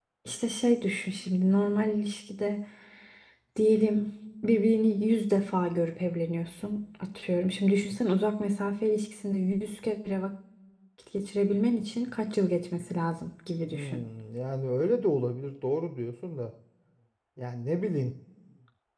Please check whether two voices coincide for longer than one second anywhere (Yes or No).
No